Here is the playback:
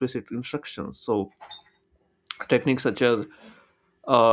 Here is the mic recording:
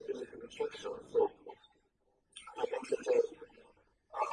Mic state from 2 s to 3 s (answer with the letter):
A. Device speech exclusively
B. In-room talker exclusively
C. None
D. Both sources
A